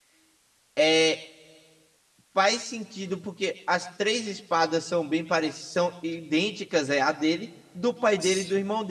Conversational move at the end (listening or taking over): listening